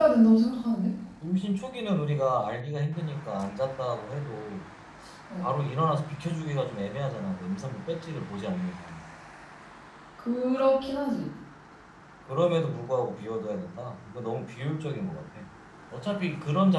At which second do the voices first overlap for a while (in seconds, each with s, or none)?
none